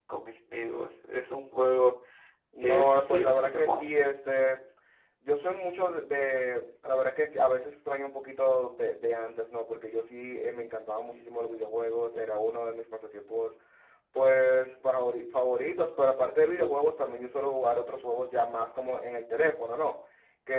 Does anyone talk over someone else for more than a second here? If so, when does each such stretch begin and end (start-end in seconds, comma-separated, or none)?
2.6-4.0